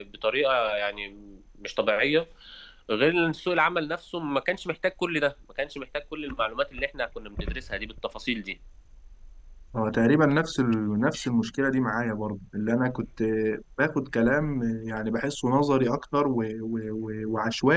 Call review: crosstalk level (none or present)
none